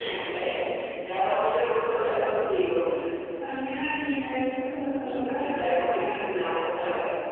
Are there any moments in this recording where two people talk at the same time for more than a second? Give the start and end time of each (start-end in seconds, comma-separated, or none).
5.0-6.3